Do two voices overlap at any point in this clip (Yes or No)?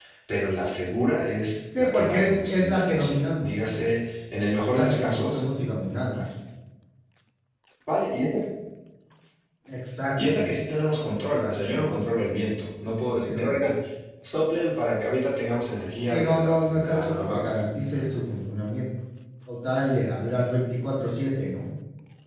Yes